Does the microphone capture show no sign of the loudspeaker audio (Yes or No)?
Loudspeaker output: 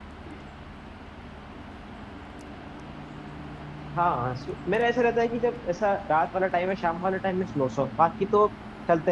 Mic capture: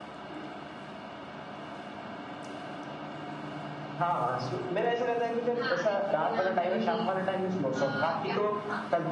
No